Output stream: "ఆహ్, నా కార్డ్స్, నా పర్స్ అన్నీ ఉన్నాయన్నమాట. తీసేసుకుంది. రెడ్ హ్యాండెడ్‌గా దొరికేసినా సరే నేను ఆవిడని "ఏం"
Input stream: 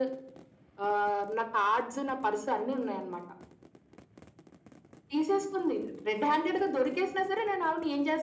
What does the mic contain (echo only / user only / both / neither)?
echo only